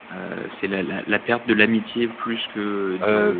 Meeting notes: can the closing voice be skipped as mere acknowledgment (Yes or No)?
No